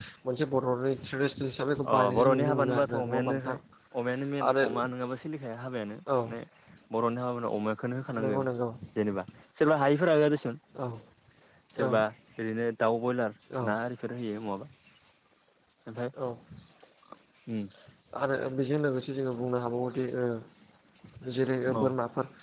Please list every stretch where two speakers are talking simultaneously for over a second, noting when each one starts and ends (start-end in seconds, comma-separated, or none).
1.9-3.6